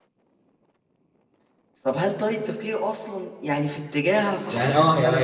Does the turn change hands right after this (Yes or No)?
Yes